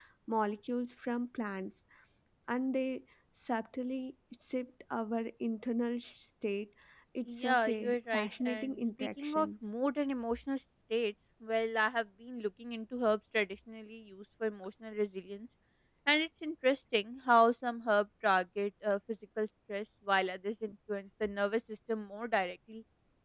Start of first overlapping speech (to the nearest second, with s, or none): 7 s